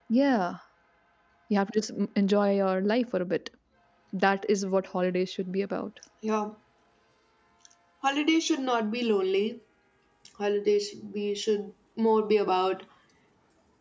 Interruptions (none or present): none